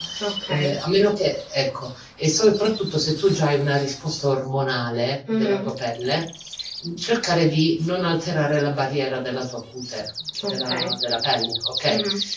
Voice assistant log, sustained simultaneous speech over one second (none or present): none